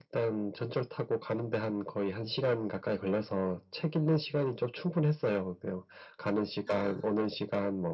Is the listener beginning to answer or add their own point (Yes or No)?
No